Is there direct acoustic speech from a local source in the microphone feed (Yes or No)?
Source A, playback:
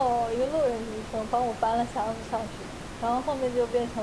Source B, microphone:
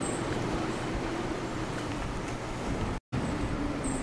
No